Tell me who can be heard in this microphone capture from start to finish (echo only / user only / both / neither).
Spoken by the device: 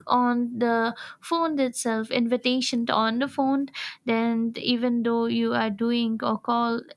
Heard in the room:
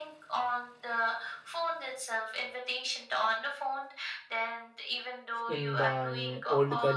both